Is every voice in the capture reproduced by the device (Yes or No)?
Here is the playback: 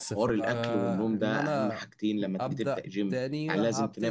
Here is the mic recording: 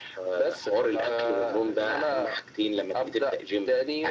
Yes